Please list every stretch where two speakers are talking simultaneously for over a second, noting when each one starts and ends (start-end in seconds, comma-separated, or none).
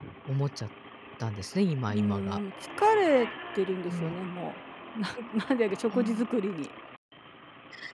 none